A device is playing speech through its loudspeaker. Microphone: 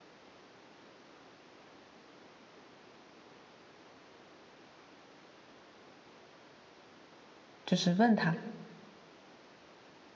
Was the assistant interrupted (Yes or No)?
Yes